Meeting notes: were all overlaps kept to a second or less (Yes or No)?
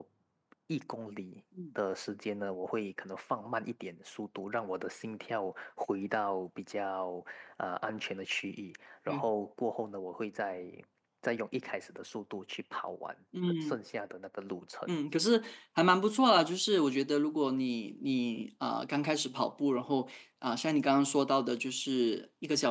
Yes